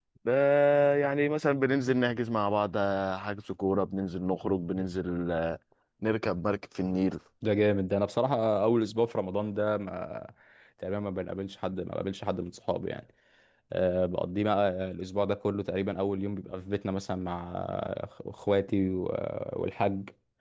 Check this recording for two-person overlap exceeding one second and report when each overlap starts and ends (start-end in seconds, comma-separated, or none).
none